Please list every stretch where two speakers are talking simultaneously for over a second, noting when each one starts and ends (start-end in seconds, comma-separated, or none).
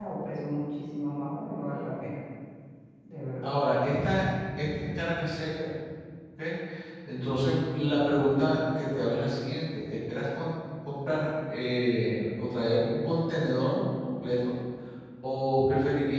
none